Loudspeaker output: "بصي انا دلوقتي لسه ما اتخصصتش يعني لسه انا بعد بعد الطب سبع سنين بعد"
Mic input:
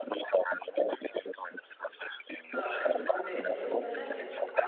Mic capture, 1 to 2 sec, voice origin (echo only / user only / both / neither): echo only